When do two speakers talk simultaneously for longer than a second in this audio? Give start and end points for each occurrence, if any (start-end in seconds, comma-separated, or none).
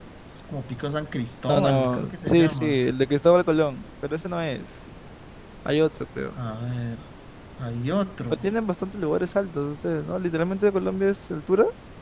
1.5-2.7